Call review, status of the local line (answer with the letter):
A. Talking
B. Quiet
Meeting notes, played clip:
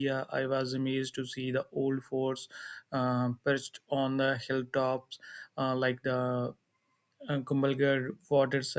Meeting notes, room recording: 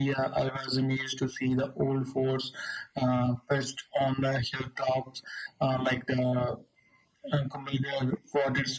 B